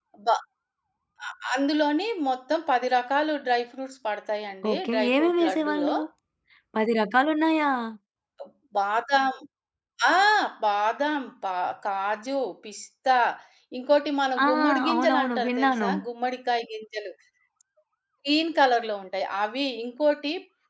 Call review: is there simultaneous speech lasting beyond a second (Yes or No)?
Yes